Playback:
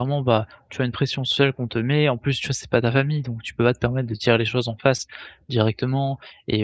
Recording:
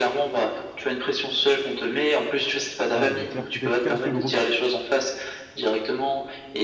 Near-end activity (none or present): present